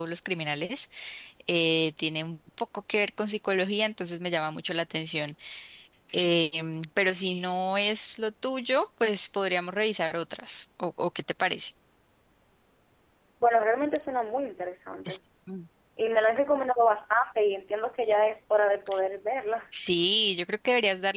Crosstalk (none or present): none